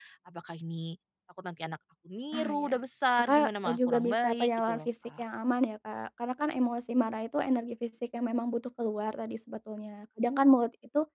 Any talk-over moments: Yes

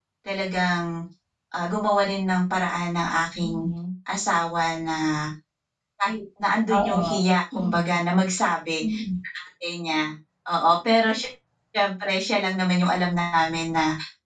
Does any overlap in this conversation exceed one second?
No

